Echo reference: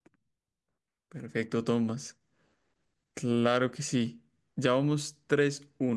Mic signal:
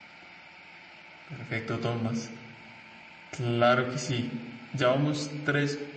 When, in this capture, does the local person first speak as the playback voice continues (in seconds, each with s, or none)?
none